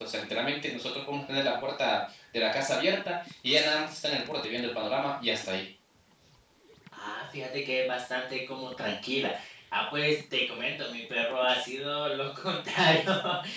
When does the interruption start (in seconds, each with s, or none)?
none